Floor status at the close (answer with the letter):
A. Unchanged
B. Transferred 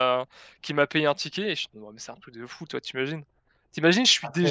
A